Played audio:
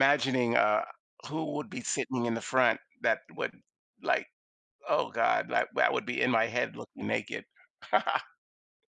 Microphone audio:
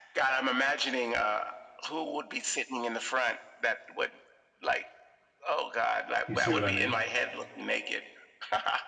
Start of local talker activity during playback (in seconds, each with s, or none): 6.3 s